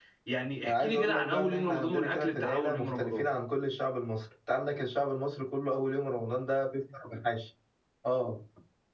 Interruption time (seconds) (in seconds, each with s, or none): 0.7 s